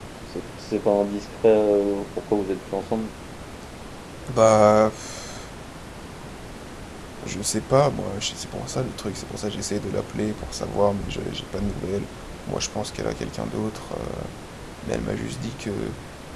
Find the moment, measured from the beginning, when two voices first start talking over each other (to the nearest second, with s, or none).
none